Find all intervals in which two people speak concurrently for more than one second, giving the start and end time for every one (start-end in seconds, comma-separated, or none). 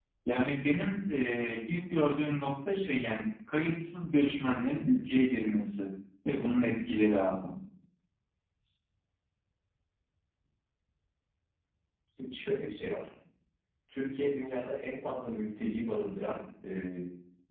none